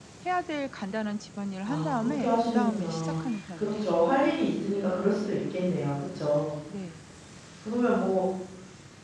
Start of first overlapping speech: 1.7 s

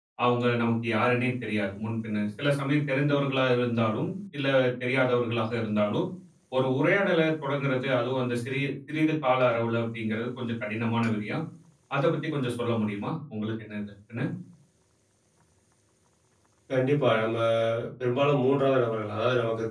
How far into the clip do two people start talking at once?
none

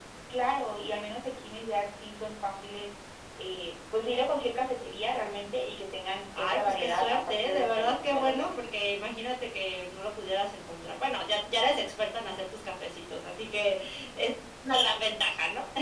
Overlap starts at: 6.3 s

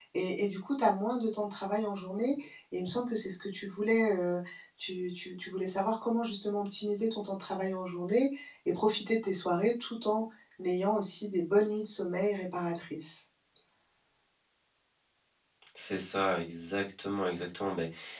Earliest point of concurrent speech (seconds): none

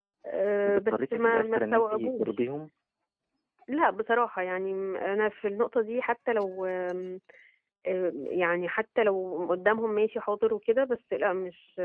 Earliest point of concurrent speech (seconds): 0.7 s

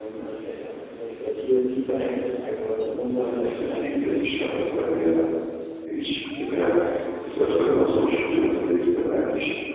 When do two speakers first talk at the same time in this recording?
3.2 s

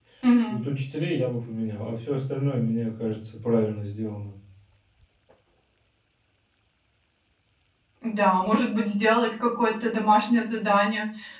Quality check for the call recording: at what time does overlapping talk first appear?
none

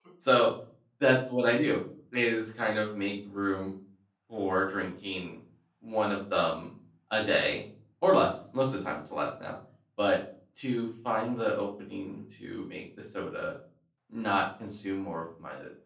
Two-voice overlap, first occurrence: none

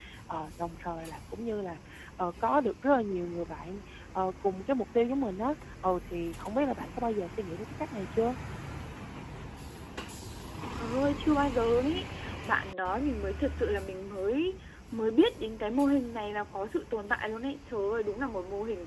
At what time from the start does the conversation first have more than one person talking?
none

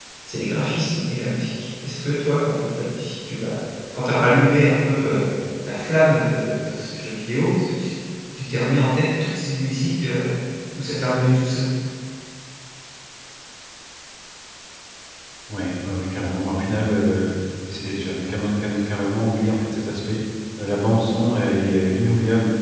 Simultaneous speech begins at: none

